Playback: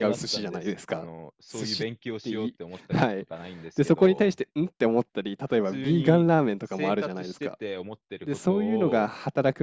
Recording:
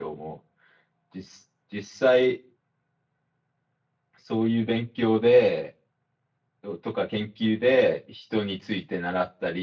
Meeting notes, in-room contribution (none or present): present